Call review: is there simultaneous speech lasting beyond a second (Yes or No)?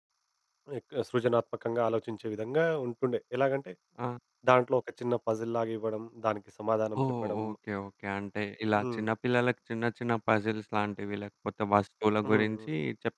No